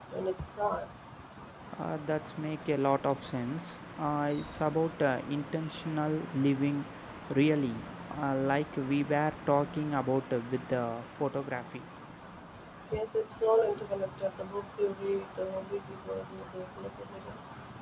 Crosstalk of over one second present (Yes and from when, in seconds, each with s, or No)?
No